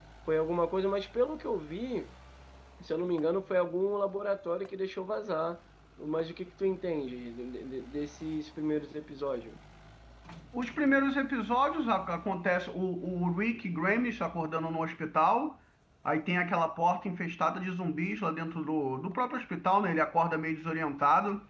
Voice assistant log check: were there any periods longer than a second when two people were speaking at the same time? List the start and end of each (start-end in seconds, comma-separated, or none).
none